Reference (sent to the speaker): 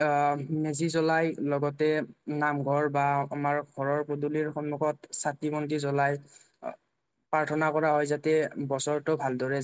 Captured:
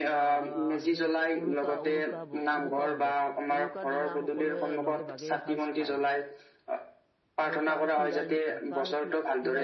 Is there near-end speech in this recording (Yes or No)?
Yes